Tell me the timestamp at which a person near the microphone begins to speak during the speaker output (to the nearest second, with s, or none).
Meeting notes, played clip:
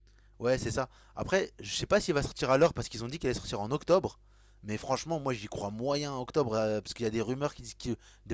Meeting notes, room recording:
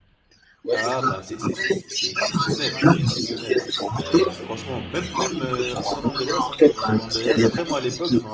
1 s